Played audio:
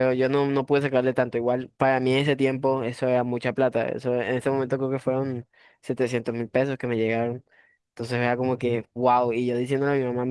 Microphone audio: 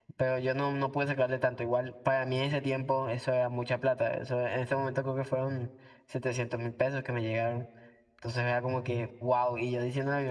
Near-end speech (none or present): none